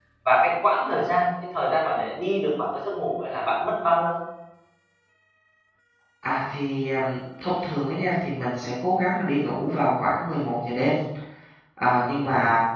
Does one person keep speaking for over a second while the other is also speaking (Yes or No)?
No